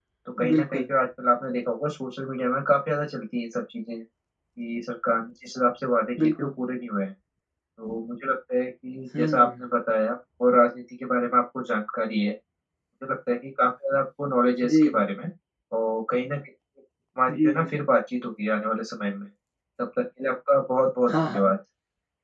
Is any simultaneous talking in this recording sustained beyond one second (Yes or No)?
No